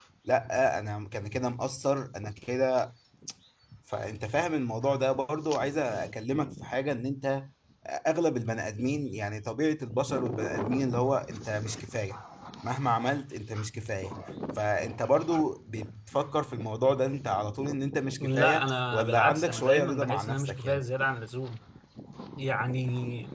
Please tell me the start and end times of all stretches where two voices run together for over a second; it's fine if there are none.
18.2-20.8

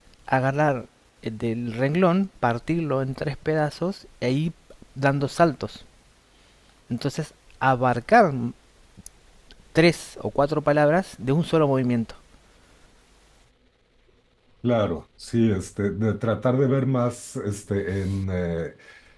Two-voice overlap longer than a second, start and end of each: none

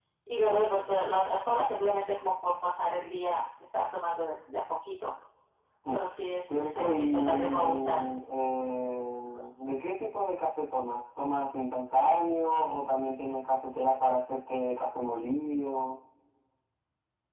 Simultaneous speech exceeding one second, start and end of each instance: 6.5-8.0

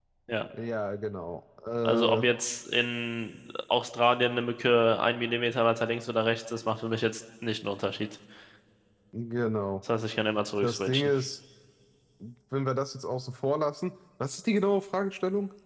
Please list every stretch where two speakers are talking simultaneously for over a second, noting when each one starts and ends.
none

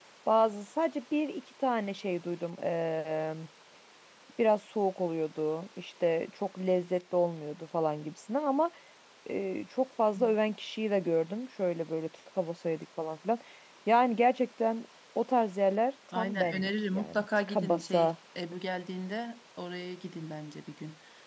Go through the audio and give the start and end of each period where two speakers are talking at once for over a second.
16.1-18.1

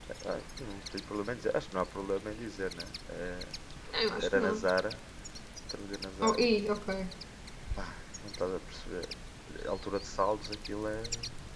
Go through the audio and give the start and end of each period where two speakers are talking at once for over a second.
none

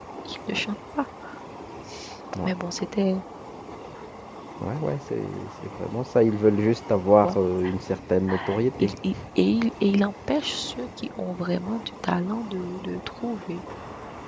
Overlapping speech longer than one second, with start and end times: none

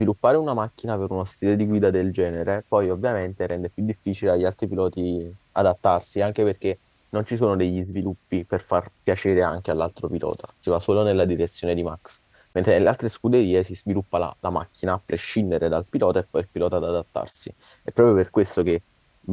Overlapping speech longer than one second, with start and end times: none

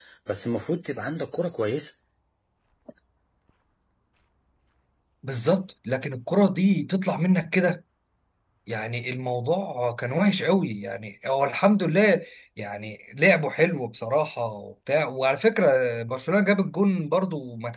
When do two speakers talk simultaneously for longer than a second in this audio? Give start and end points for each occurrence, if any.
none

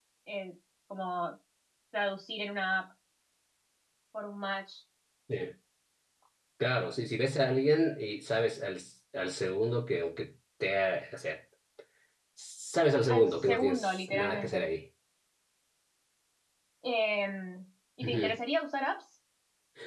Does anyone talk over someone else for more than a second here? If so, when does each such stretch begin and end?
13.1-14.6

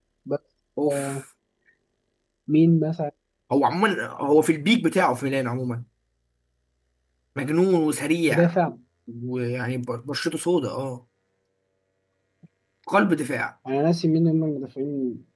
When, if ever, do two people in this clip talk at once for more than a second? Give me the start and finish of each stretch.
none

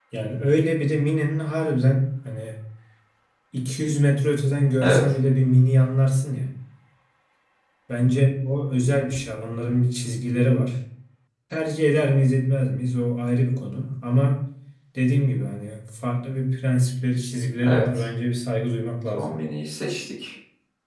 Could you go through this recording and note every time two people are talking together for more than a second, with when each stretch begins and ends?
none

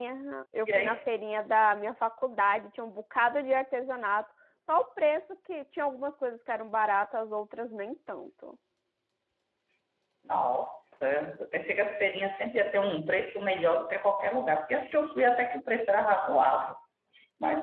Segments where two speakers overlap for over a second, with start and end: none

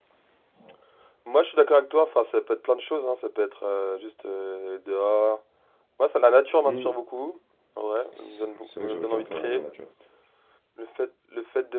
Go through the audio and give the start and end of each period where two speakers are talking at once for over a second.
8.2-9.6

